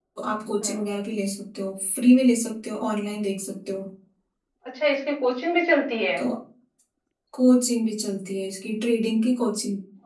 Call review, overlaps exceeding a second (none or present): none